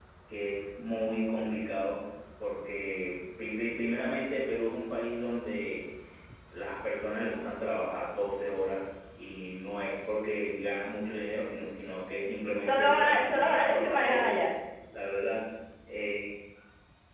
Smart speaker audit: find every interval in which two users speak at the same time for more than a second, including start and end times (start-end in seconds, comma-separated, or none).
12.7-14.3